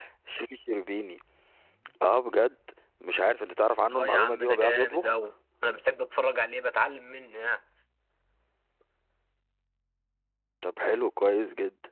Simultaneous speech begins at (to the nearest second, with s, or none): 4 s